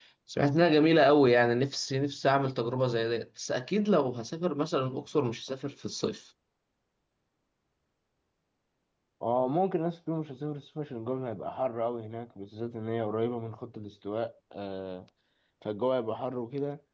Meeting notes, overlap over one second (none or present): none